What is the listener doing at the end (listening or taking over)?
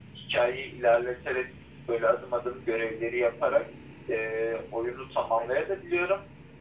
listening